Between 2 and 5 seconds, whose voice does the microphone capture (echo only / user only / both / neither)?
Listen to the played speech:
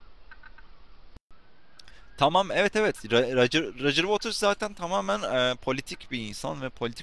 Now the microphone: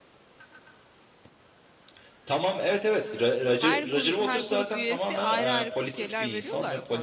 both